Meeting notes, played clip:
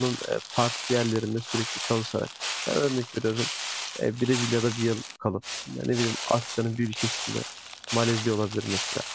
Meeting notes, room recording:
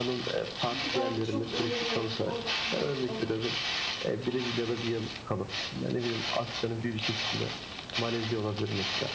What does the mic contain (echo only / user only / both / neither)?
both